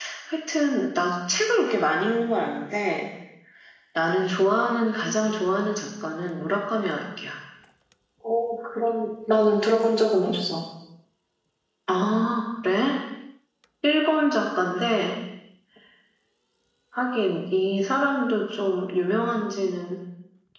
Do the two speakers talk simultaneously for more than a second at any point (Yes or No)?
No